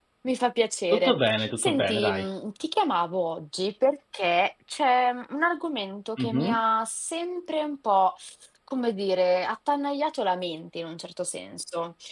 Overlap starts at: 0.9 s

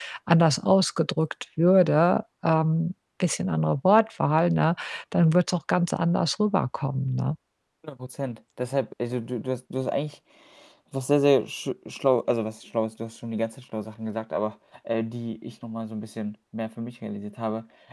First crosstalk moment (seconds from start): none

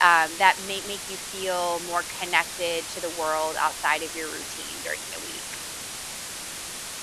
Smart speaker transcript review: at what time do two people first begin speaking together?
none

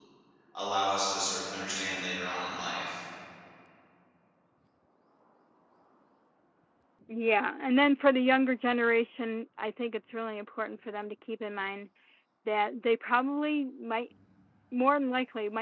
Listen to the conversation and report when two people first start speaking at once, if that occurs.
none

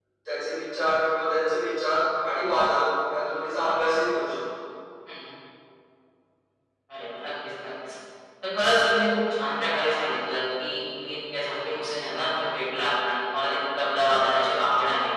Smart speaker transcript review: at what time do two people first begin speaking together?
none

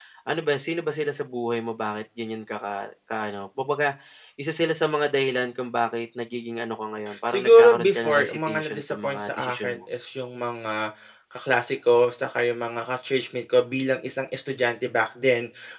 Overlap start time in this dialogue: 7.1 s

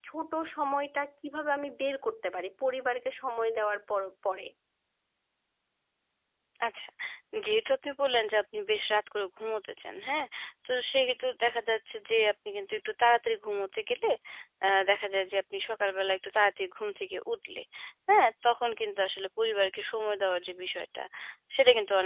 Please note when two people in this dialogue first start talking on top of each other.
none

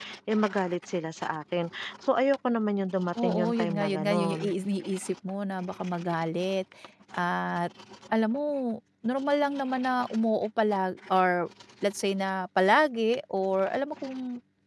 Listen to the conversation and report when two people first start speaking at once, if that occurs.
3.2 s

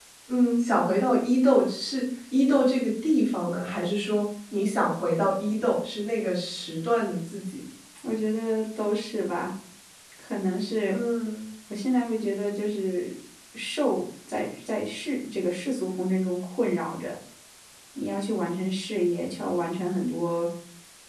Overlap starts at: none

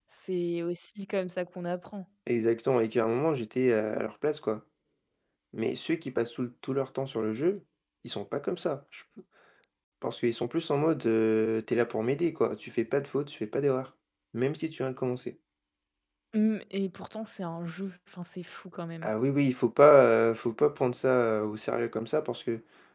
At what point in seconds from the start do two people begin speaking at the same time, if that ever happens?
none

